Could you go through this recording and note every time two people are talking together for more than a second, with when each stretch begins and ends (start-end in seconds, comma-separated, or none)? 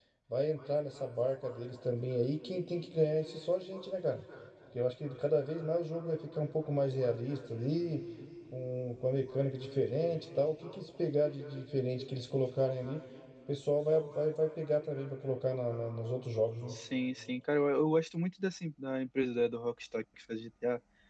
none